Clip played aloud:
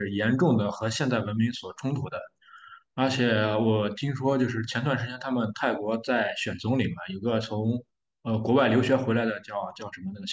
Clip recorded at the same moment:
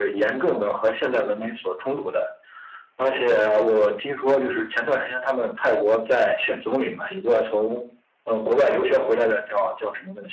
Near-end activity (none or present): none